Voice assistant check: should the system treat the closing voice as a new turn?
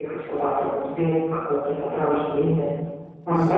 Yes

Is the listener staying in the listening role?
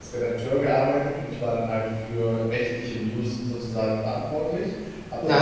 No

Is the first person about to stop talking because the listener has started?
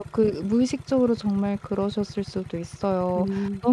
No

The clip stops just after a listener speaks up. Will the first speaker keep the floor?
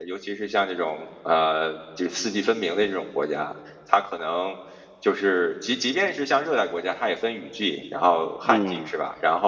Yes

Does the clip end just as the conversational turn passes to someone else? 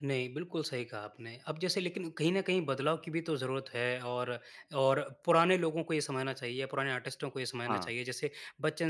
No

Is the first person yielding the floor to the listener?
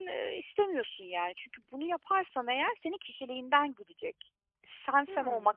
No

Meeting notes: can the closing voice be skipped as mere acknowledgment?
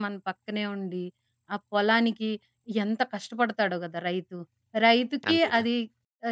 Yes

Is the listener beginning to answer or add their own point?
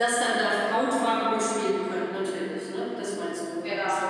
Yes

